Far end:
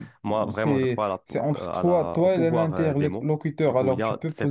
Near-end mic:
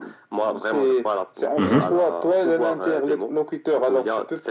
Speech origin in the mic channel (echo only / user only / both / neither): both